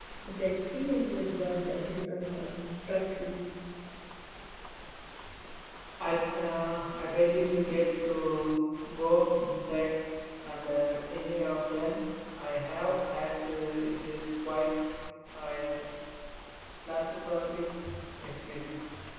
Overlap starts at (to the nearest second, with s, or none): none